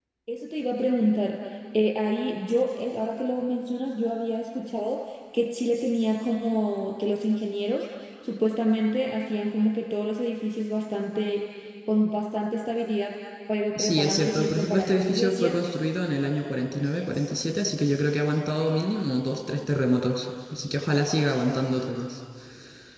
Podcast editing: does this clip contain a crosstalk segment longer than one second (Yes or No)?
Yes